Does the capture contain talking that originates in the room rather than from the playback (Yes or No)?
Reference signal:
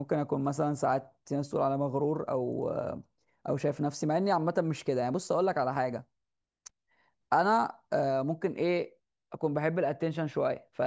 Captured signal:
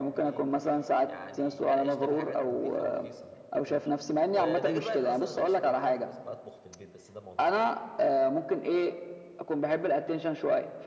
Yes